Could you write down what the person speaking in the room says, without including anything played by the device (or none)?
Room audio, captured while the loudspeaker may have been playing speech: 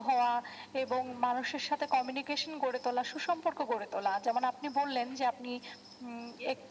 none